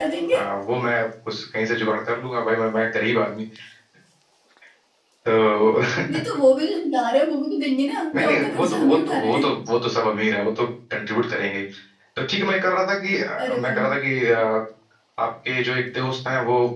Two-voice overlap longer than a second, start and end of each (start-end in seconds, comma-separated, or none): 8.1-9.4